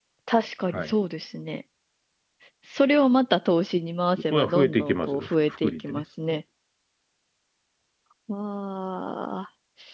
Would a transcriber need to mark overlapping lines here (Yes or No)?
Yes